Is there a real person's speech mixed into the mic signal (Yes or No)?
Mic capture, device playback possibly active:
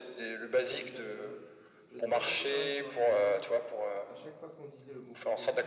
Yes